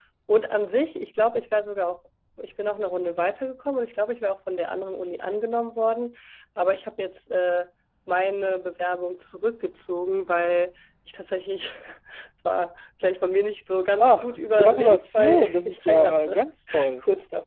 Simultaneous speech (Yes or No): Yes